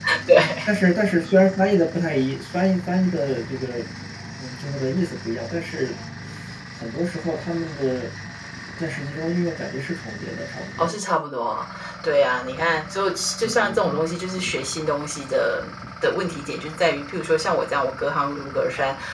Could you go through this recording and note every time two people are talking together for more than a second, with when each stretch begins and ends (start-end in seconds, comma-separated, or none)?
none